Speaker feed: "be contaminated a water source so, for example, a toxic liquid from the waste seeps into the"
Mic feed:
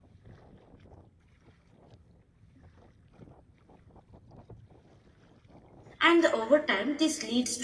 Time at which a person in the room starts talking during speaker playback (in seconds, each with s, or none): 6.0 s